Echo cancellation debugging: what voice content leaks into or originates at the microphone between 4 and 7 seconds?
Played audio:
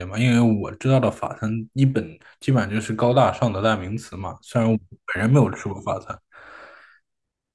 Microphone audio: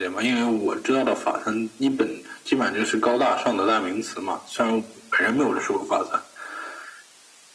echo only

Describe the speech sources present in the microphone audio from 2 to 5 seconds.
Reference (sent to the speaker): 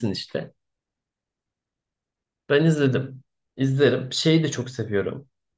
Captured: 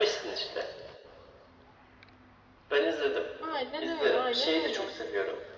both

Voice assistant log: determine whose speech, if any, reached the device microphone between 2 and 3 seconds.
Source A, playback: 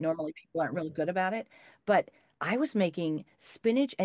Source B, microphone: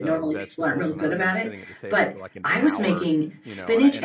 both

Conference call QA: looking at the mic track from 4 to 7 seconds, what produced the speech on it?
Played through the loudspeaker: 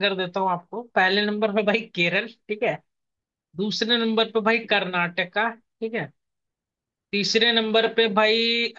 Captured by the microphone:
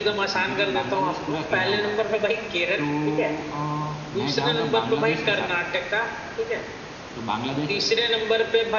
both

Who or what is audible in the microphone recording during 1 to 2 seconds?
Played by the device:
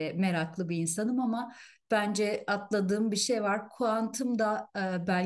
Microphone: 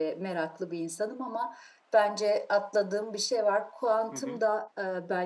echo only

